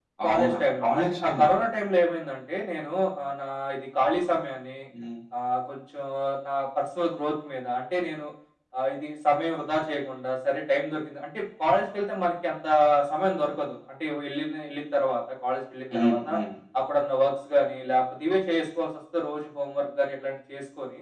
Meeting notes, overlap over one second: present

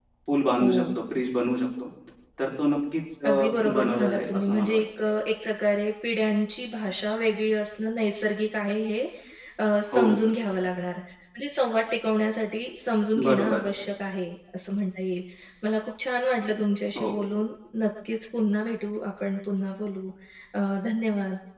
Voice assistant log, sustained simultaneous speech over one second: present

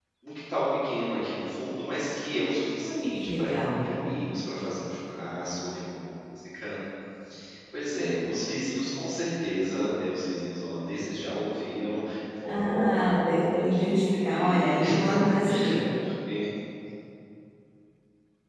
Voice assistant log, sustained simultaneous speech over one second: present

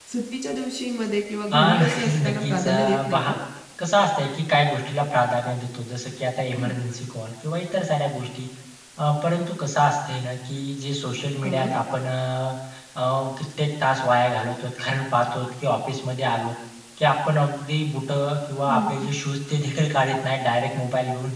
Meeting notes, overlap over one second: present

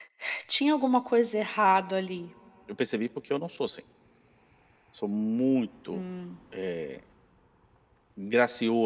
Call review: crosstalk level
none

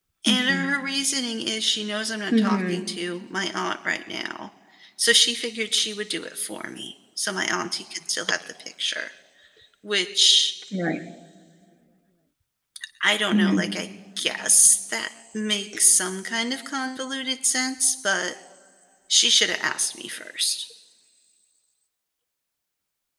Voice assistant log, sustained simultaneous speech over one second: none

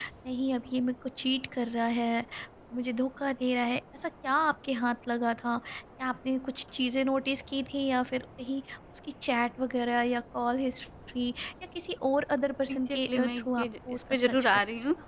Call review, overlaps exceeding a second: present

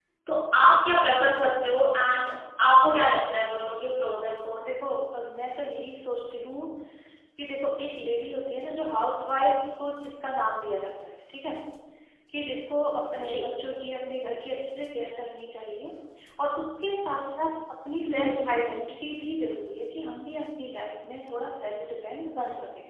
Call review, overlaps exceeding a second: none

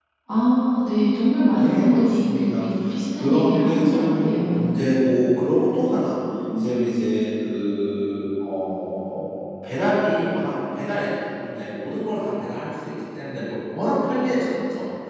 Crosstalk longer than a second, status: present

